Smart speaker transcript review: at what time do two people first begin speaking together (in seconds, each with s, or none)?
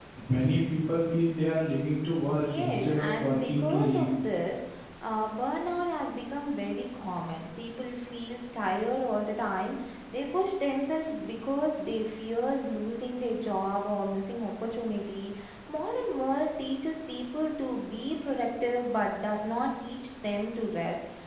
2.4 s